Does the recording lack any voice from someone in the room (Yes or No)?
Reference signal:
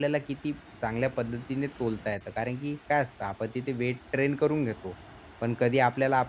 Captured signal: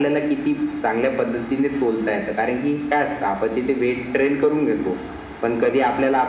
Yes